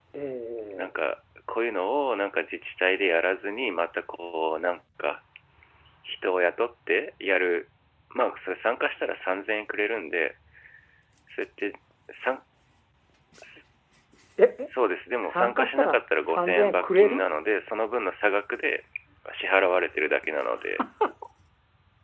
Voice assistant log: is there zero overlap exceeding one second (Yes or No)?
No